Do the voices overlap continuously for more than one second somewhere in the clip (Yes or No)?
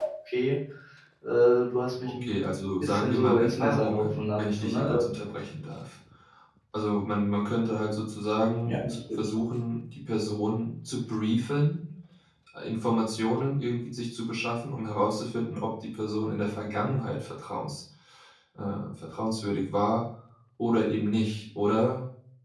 Yes